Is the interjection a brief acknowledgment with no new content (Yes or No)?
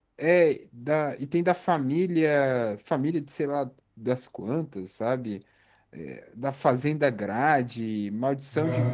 Yes